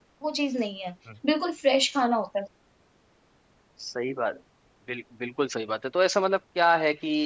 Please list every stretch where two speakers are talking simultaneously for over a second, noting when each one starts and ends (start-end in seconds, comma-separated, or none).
none